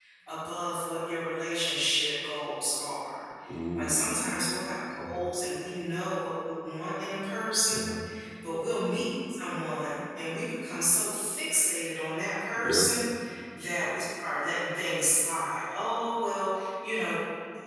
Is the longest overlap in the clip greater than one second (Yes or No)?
No